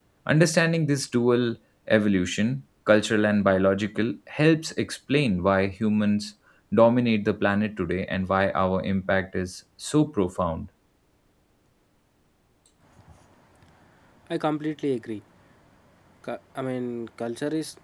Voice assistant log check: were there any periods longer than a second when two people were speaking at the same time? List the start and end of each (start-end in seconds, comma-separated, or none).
none